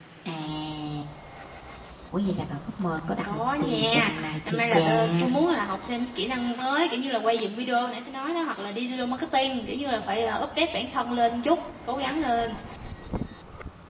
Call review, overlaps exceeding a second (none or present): present